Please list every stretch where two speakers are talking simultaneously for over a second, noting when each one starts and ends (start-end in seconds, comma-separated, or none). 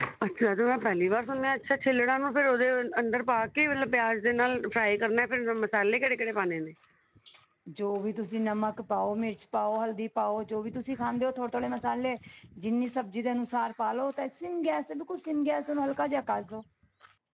none